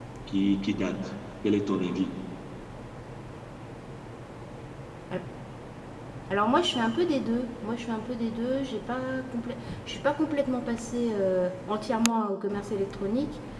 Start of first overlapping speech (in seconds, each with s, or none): none